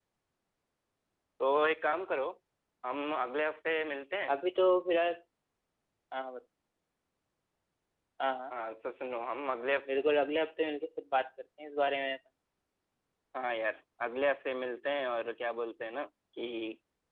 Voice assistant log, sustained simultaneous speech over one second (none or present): none